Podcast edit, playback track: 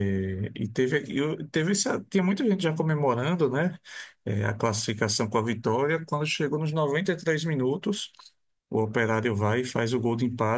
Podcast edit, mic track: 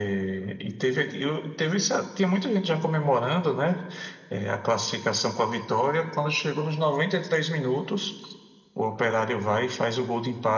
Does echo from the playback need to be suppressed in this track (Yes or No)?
Yes